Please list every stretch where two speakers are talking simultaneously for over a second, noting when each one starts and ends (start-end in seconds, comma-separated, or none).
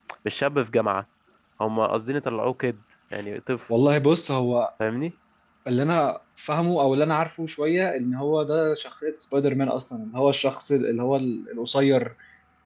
none